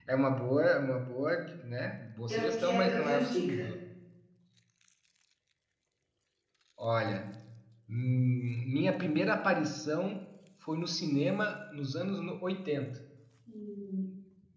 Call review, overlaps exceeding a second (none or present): present